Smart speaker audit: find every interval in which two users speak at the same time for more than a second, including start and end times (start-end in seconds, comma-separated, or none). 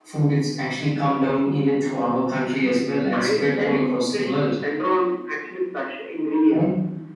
3.1-4.5